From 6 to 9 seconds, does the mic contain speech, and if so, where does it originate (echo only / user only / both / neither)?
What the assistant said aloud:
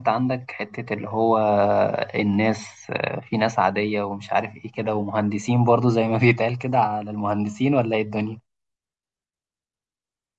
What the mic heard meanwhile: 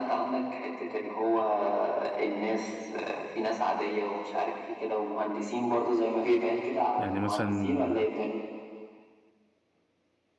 both